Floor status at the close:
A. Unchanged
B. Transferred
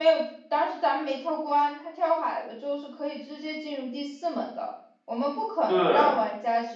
A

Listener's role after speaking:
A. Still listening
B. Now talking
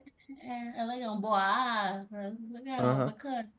B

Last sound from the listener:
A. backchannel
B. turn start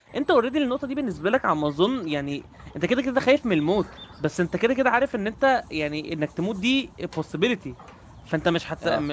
A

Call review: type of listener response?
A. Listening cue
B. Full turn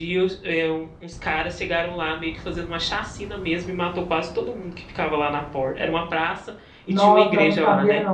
B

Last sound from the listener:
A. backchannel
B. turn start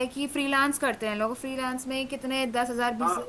A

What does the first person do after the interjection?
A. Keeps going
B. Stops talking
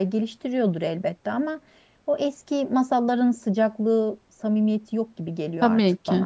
B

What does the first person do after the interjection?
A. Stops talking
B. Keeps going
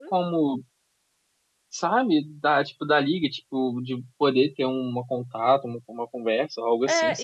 A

